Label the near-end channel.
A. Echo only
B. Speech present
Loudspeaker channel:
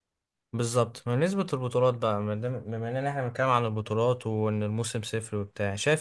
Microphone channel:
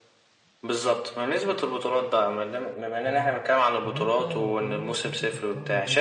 B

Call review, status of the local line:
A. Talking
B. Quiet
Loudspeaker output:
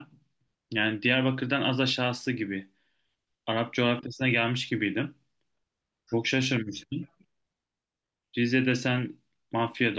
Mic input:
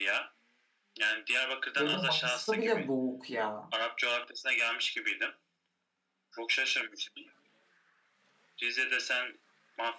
A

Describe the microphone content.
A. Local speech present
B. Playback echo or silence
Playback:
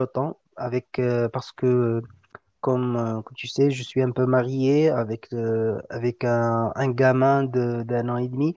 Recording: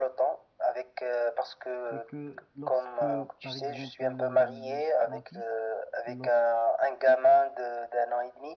A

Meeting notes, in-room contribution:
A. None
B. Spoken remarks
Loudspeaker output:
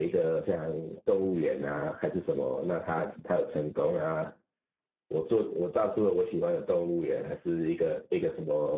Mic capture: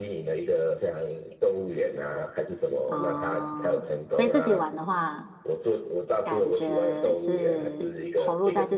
B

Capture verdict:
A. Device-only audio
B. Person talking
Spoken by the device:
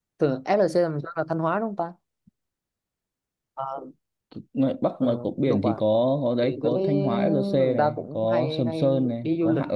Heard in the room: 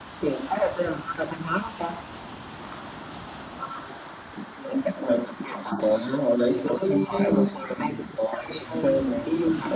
A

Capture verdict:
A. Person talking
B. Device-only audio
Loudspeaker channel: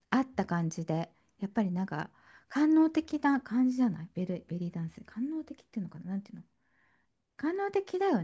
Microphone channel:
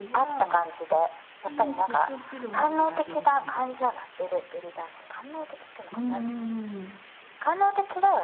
A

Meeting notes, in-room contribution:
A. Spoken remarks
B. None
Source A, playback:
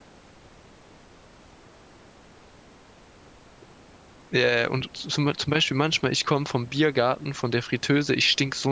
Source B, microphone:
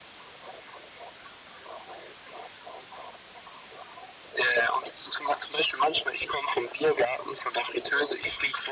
B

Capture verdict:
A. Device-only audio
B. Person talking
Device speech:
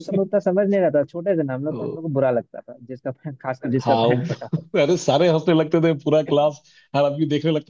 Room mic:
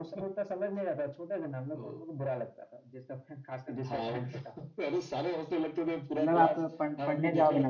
B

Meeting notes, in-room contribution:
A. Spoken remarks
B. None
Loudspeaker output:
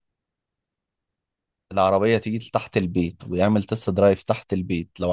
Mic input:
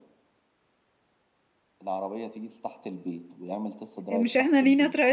A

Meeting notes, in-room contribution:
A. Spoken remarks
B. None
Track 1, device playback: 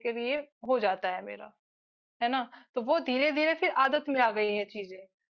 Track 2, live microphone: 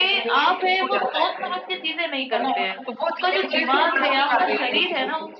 A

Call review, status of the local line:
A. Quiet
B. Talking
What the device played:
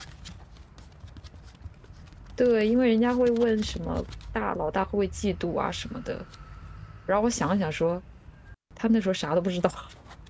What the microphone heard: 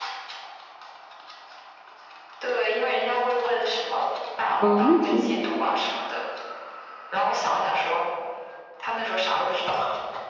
B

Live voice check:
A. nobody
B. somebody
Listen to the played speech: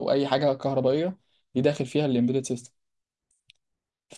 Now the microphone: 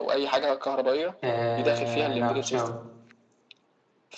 B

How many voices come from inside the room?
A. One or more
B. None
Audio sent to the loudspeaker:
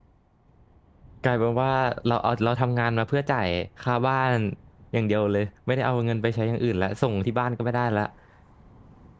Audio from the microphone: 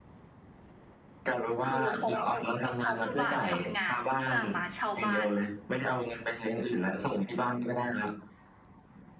A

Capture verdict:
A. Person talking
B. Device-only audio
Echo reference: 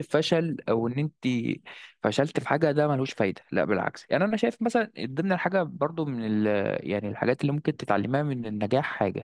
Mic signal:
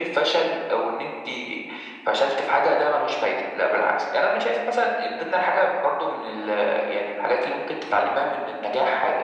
B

